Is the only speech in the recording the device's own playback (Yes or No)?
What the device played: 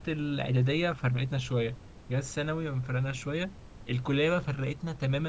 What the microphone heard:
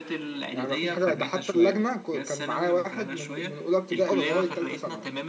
No